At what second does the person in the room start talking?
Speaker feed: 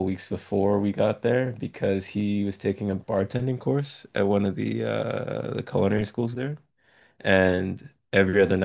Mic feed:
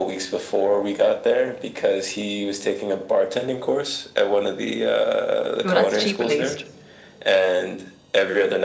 6 s

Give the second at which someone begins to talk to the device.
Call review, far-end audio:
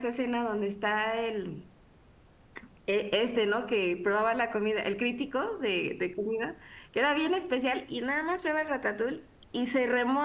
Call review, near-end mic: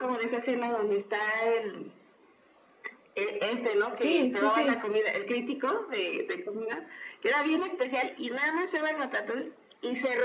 4 s

